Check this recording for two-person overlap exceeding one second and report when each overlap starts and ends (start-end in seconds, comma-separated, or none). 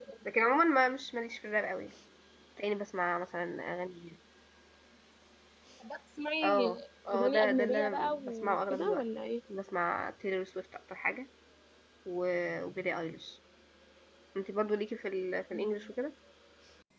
7.1-9.0